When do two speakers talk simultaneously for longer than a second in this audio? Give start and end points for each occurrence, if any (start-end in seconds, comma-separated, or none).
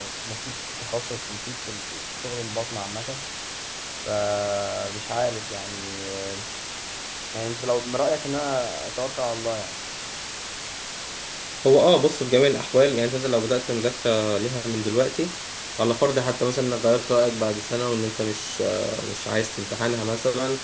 none